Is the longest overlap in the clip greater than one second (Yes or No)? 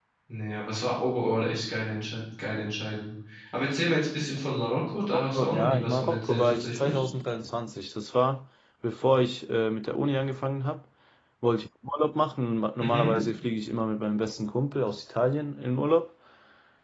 Yes